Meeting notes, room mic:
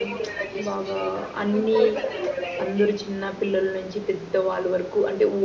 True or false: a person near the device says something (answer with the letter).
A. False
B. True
B